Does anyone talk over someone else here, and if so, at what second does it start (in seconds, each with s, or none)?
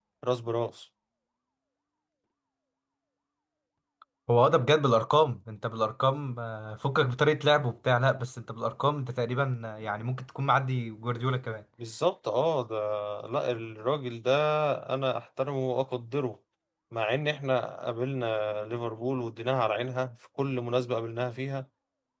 none